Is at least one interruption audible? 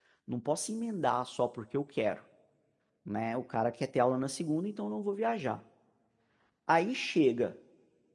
No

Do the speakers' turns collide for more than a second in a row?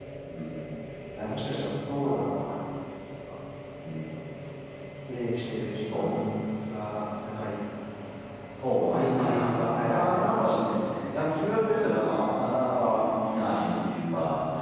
Yes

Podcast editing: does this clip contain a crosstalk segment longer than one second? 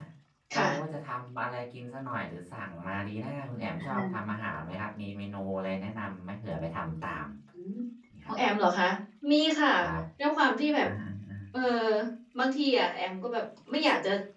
No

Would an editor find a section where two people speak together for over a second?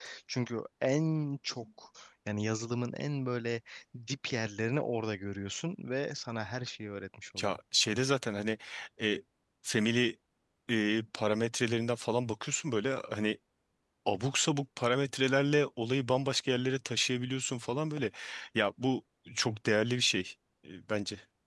No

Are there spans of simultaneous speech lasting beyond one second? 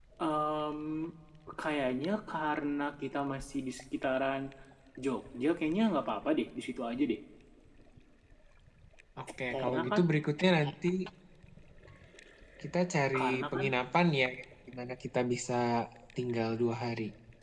No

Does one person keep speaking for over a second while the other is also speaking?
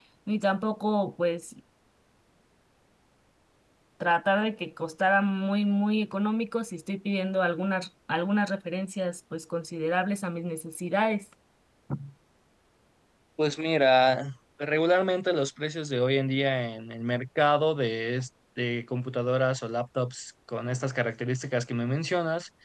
No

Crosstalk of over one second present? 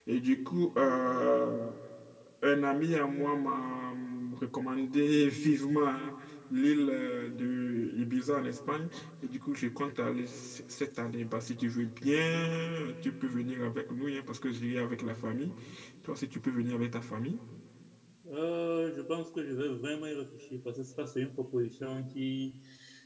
No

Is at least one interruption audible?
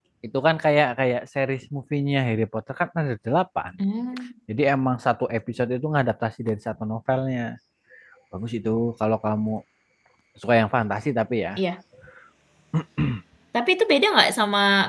No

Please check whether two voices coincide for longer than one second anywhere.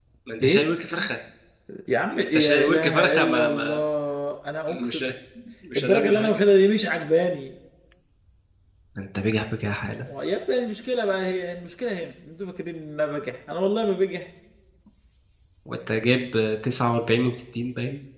Yes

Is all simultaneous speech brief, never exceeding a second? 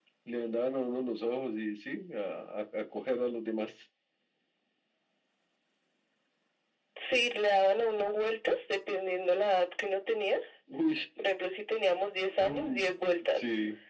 Yes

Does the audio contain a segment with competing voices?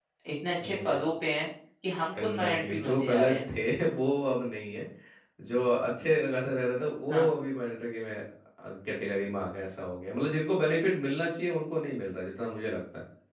Yes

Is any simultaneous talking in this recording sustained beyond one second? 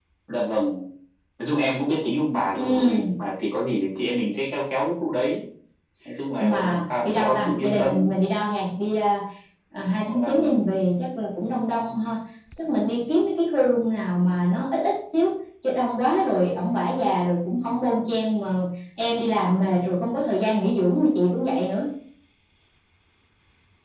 Yes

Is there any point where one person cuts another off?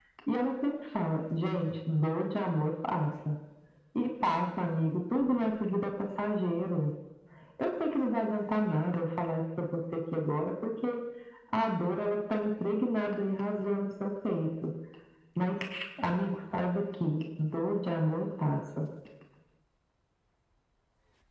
No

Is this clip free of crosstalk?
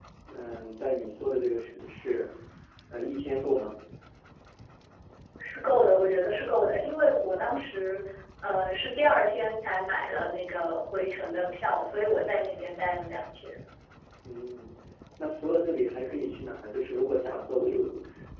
Yes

